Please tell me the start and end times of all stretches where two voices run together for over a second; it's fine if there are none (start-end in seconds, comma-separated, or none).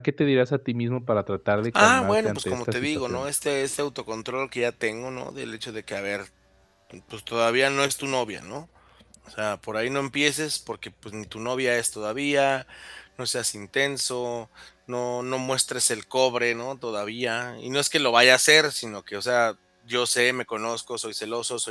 1.8-3.2